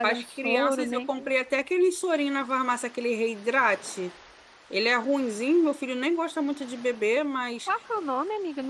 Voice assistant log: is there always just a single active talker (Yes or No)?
No